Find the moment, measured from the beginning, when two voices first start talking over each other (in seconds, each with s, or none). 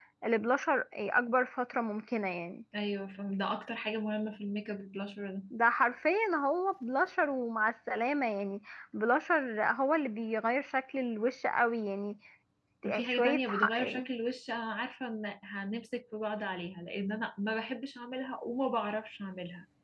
12.8 s